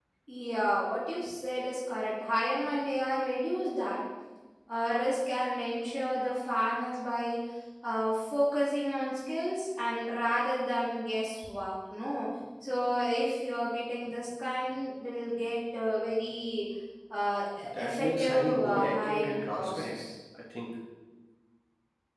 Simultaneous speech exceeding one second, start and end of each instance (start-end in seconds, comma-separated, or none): 17.6-20.0